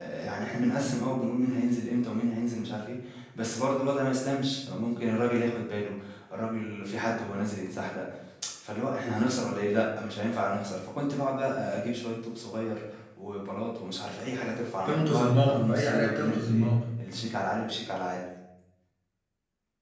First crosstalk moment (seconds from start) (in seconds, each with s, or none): 14.8 s